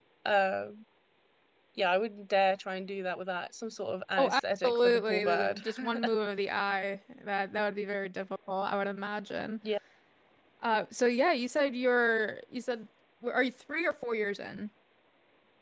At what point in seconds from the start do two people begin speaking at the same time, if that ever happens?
4.2 s

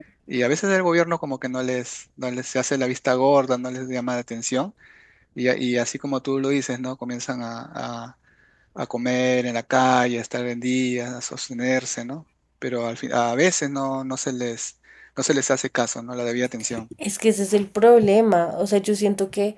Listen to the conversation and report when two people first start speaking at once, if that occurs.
none

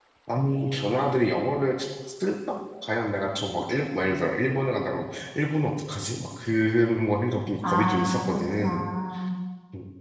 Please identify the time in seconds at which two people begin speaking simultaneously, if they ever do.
7.6 s

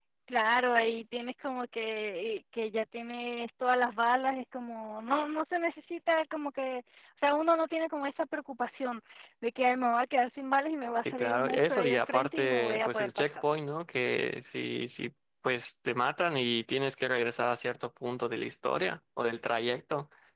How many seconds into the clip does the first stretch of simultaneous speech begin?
11.0 s

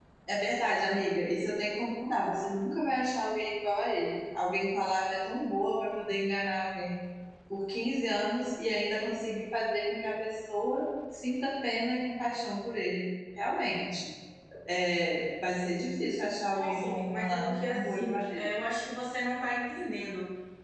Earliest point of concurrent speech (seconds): 16.5 s

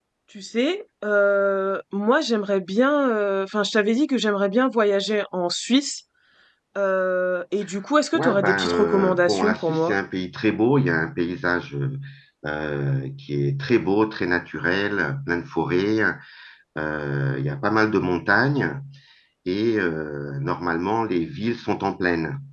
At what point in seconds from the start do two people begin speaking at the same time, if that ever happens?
8.1 s

